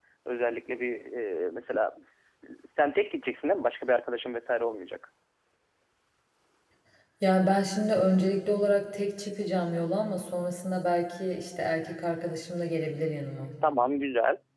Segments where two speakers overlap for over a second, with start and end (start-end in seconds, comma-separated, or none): none